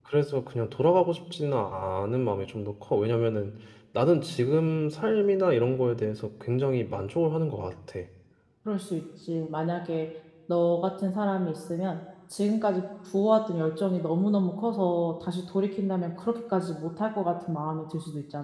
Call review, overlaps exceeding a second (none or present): none